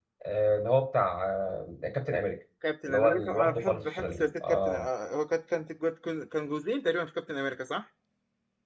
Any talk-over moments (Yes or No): Yes